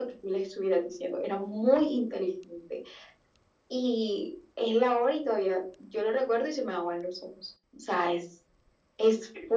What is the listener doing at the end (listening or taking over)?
taking over